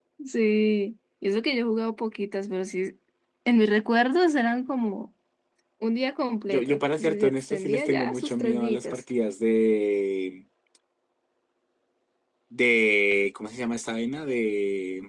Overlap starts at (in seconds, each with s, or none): 6.5 s